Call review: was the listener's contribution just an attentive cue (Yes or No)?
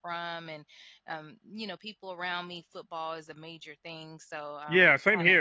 No